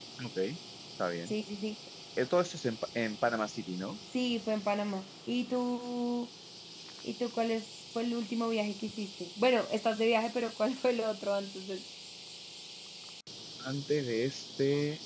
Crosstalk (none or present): none